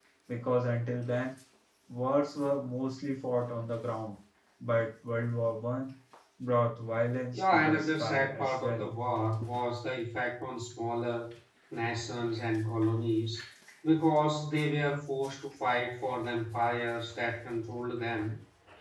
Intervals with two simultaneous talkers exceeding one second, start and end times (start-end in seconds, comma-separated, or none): 7.3-8.9